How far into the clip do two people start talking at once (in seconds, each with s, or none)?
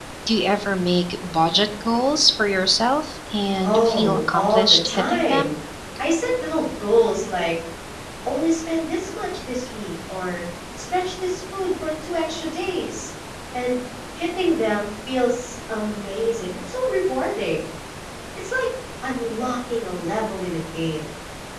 3.6 s